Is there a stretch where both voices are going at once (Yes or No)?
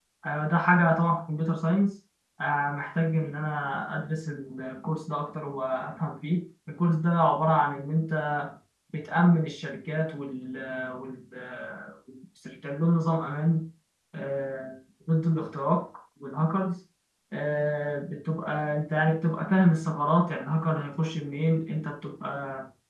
No